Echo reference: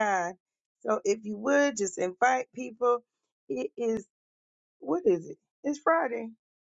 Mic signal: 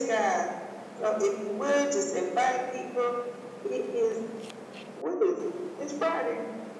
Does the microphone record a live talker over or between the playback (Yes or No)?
No